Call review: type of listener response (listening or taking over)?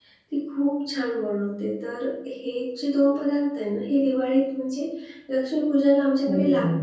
listening